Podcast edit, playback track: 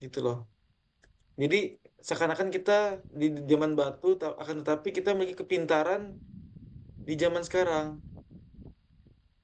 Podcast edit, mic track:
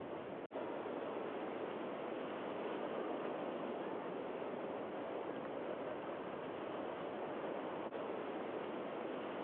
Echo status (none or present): none